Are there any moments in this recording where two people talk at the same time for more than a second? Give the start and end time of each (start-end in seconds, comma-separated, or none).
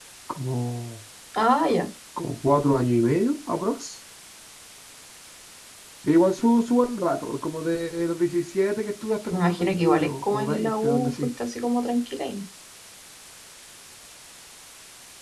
9.3-11.1